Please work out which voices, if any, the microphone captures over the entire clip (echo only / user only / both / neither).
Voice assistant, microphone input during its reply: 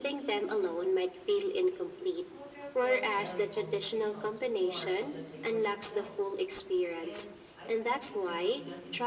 both